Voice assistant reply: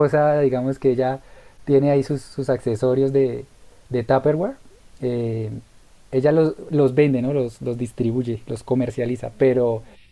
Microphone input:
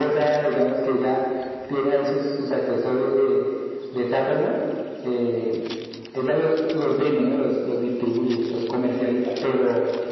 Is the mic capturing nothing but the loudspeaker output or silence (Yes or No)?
Yes